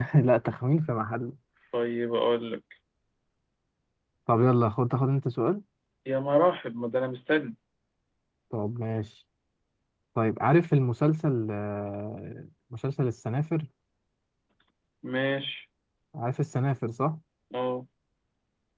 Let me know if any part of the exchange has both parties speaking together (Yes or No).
No